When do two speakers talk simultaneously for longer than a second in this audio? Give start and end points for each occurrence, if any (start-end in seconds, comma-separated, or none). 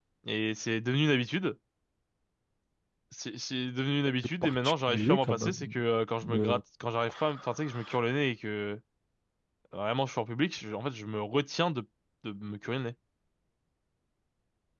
4.4-5.7